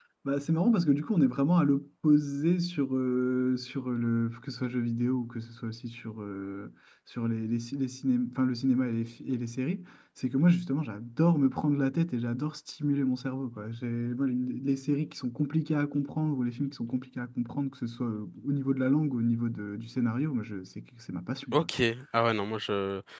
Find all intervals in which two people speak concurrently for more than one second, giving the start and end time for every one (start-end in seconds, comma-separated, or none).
none